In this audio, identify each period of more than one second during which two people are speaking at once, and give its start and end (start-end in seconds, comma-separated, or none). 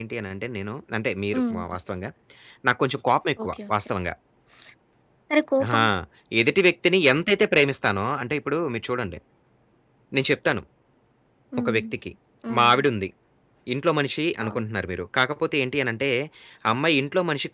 none